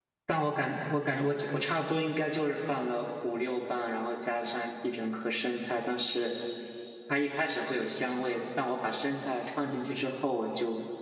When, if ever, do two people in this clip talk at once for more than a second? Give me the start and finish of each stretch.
none

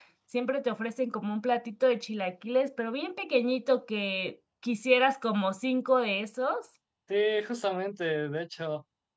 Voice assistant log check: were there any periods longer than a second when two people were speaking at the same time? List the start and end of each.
none

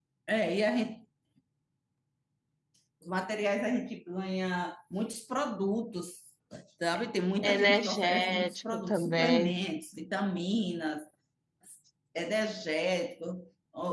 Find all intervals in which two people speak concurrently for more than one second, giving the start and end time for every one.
7.4-9.6

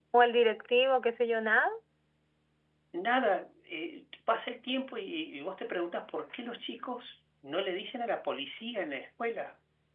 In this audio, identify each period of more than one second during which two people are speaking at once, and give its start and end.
none

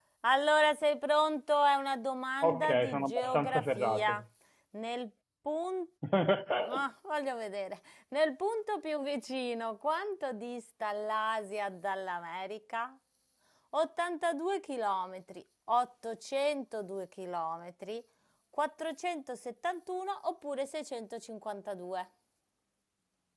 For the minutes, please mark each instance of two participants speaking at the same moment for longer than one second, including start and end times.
2.4-4.2

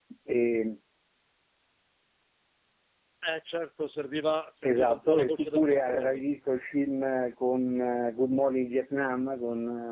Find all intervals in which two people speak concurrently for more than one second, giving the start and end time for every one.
4.6-6.2

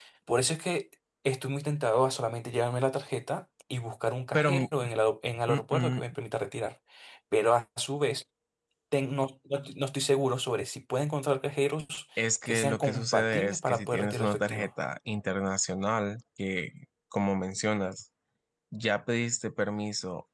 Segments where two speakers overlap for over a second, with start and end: 12.4-14.7

